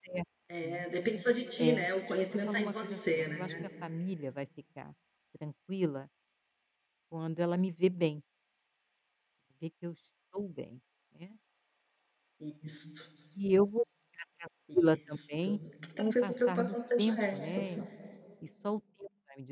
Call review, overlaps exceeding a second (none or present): present